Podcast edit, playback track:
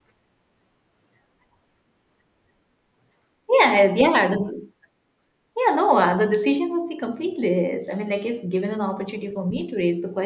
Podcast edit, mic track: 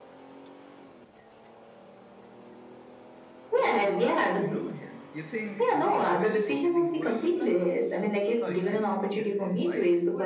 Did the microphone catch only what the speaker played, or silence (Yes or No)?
No